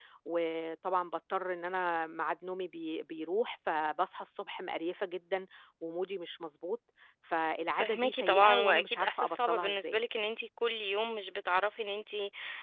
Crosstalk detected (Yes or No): Yes